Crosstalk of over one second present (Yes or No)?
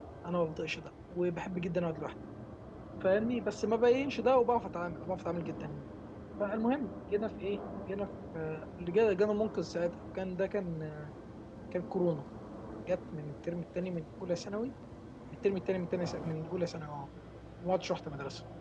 No